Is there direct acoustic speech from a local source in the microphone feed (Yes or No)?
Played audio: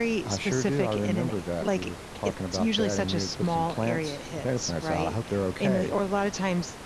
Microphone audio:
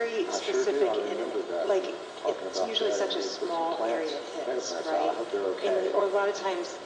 No